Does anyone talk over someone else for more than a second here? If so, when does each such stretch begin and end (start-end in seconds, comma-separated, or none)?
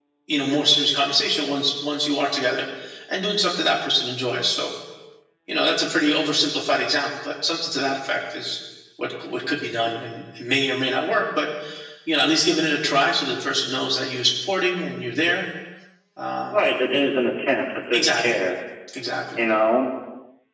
none